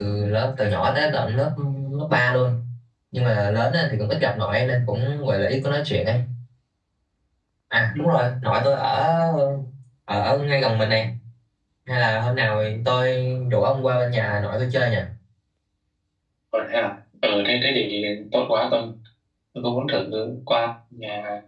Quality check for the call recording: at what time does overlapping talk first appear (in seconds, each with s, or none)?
none